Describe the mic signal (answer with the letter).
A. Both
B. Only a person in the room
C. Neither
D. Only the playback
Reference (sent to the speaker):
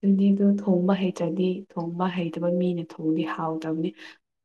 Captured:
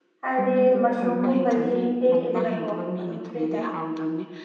A